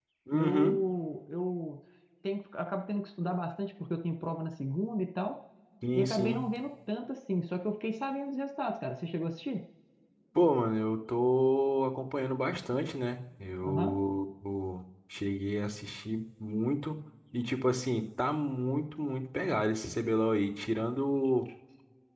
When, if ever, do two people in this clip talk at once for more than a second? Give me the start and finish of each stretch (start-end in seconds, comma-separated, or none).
none